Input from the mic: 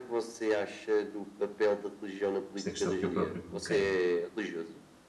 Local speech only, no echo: esta questão que eu próprio coloquei.

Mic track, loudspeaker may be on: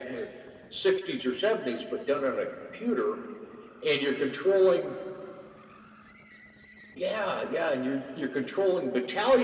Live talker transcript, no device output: none

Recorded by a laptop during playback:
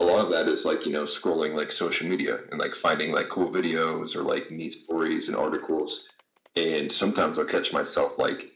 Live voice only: none

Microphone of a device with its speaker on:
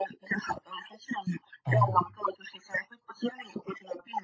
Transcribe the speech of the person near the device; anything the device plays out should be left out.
哦。

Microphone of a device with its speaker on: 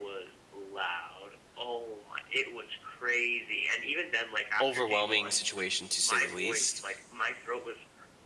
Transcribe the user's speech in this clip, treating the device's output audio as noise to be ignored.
overwhelming situation to say the least.

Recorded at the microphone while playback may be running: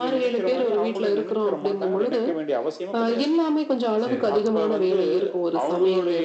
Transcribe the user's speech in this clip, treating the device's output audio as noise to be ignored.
சரி, சரி.

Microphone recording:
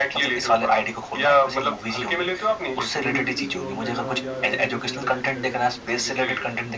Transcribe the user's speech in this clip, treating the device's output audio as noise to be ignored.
वो रील्स स्क्रॉल करना या वीडियोज़ वगैरह चेक करना।

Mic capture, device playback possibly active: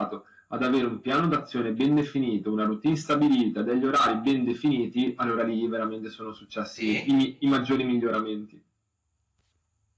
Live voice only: Sì,

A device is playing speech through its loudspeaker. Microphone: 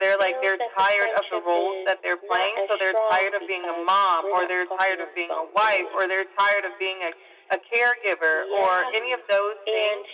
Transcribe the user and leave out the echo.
none

